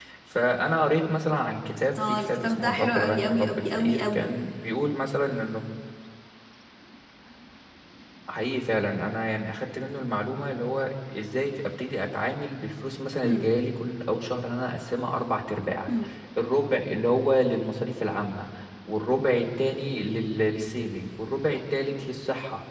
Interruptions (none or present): present